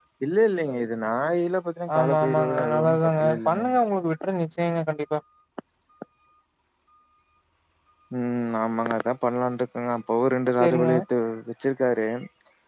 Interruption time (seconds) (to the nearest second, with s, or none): 2 s